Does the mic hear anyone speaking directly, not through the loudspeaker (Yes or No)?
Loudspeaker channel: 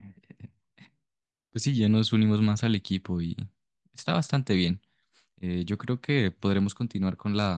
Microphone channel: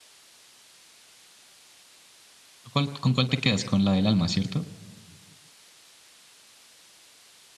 Yes